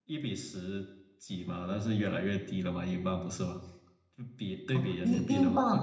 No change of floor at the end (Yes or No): No